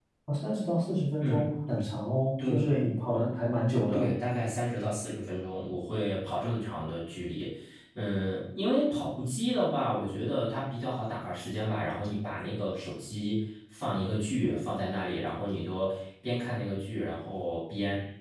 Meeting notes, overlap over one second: none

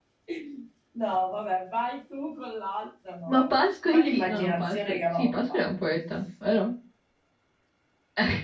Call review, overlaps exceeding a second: present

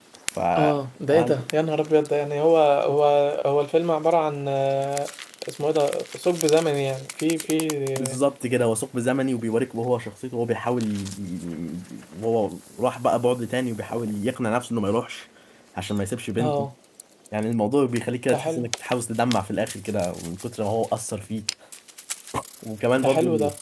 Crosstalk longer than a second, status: none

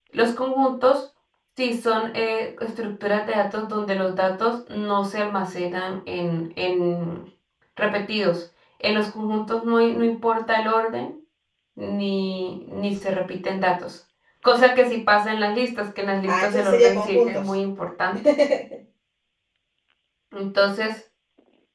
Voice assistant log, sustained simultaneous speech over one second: present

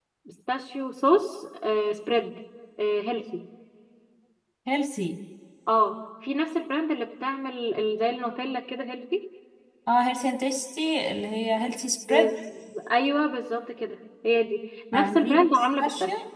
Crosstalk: present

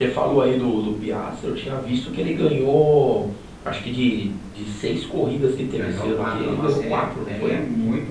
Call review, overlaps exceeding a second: present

